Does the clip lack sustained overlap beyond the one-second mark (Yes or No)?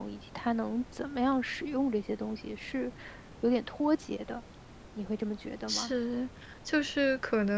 Yes